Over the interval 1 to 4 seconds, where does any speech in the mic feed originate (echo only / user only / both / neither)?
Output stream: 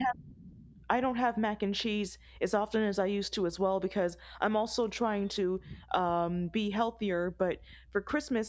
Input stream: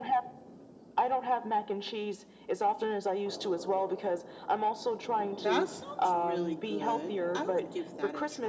echo only